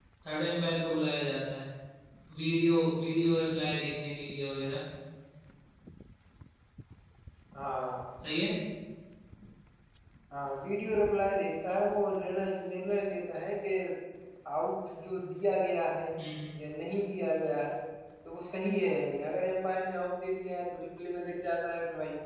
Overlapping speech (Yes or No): No